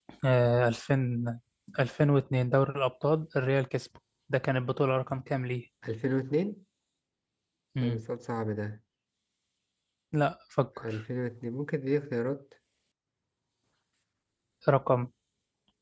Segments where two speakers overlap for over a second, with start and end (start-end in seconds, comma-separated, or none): none